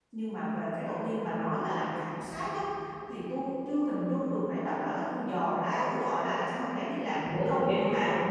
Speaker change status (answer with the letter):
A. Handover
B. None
A